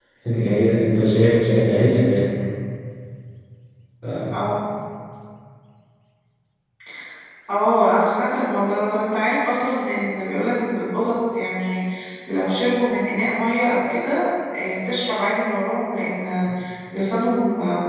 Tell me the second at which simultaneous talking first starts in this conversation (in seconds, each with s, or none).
none